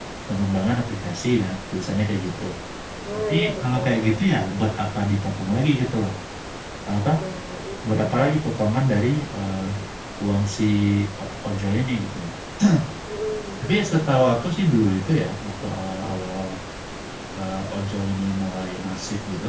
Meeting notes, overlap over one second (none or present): present